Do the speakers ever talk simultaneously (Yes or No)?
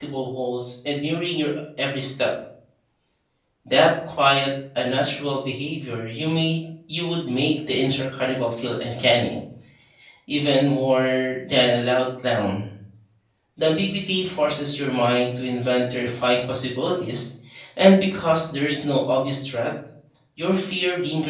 No